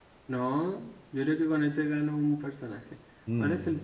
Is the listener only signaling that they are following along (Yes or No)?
Yes